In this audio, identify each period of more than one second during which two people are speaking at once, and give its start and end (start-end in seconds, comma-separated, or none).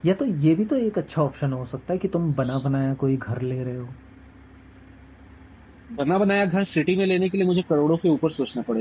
none